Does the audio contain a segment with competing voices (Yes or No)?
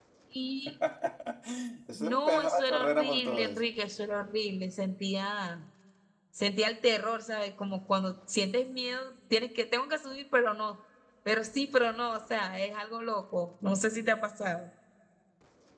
Yes